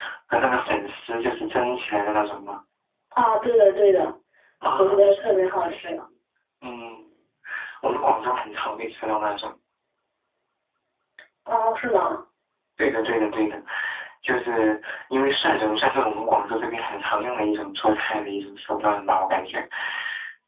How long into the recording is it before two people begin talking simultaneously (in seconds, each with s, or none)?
4.8 s